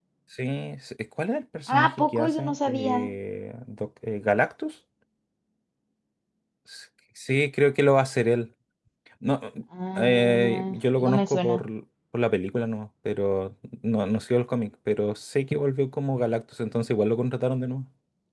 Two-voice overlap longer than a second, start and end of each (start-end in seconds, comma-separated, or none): 1.7-3.0, 10.0-11.6